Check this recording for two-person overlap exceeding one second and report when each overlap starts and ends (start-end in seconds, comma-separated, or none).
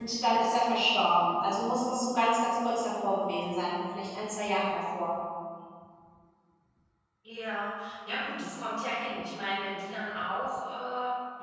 none